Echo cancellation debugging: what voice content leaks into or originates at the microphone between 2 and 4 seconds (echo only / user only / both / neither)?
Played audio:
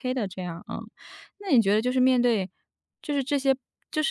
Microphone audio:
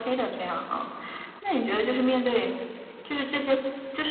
echo only